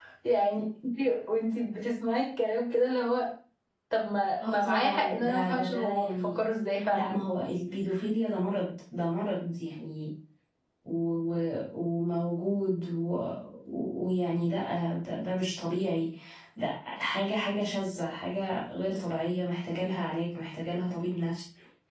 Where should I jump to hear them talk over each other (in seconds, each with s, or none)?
4.5 s